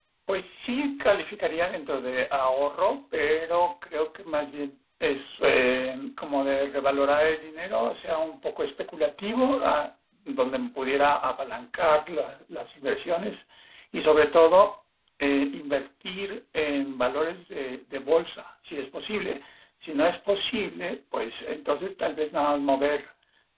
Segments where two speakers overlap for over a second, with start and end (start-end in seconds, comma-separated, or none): none